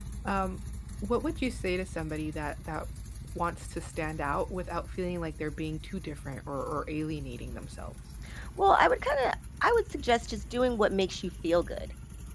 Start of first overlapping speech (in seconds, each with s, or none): none